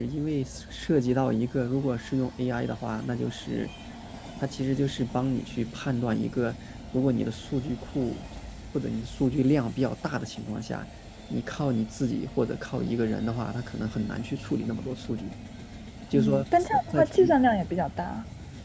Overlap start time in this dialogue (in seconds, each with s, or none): 16.1 s